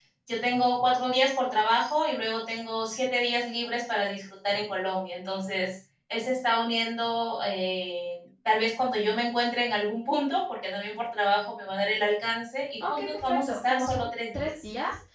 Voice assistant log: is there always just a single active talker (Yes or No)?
No